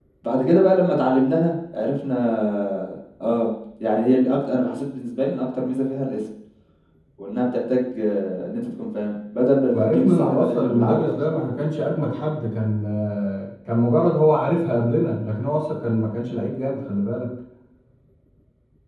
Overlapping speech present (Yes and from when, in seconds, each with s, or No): Yes, from 9.7 s